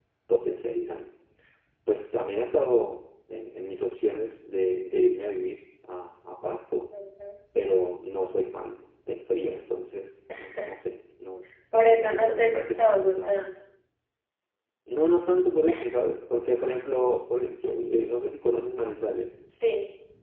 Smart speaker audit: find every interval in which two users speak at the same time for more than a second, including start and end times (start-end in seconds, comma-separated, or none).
11.8-13.3